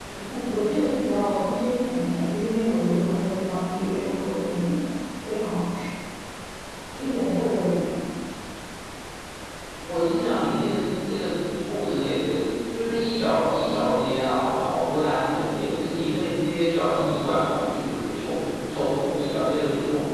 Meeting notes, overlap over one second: none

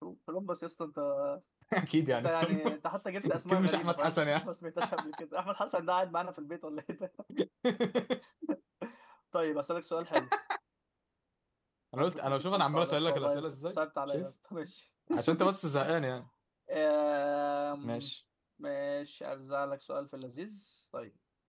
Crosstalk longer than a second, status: present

